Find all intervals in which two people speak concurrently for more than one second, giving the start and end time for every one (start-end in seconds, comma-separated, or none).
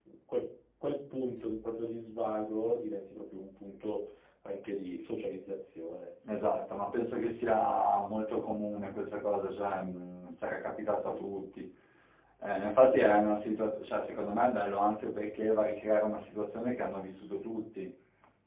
none